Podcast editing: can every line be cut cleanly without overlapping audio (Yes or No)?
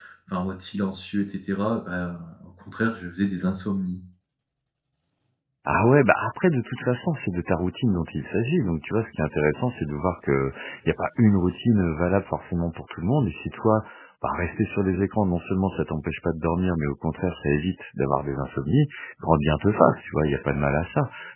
Yes